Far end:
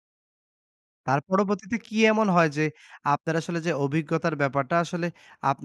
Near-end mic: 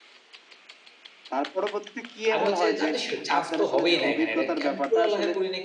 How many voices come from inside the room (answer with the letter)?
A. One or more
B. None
A